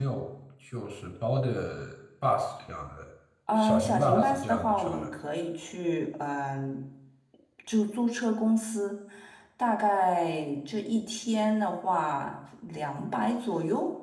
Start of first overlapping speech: 4 s

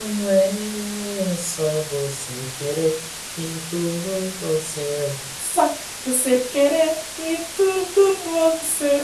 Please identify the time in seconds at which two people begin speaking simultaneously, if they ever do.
none

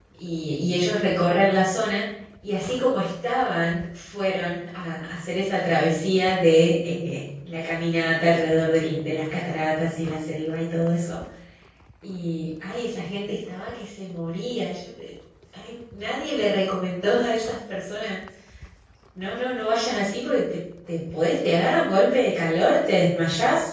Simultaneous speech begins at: none

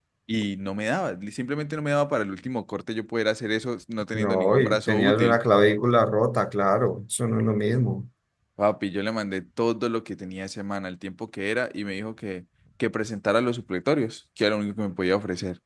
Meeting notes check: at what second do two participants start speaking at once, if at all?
4 s

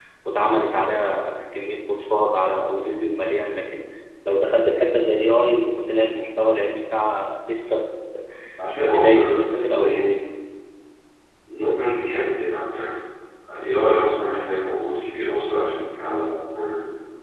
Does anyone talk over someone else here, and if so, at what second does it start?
9 s

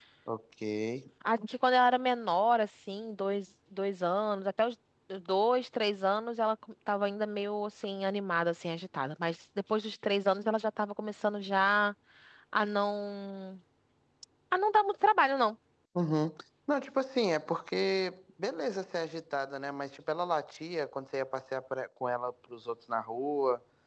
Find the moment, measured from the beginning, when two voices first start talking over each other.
none

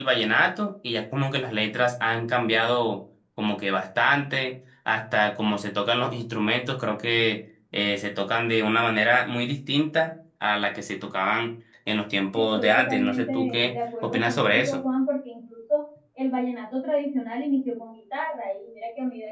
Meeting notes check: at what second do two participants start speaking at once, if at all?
12 s

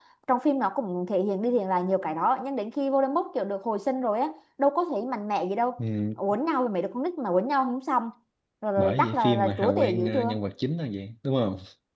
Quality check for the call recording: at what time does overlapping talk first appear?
9 s

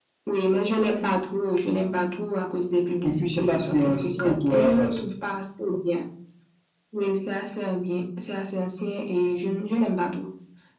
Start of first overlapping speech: 3 s

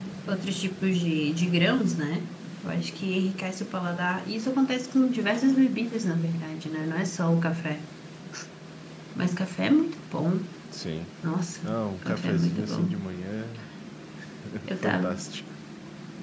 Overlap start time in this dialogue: 12 s

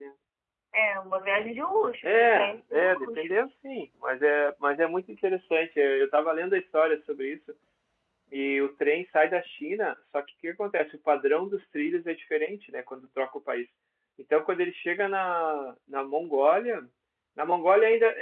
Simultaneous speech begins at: 2 s

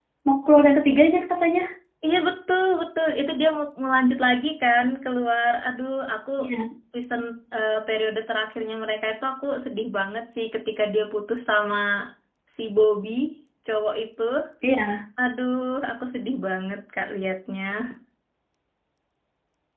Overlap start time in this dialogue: none

